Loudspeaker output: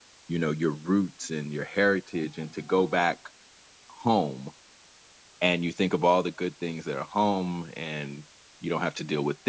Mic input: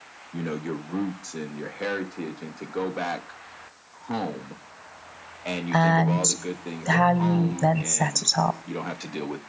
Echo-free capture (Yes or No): No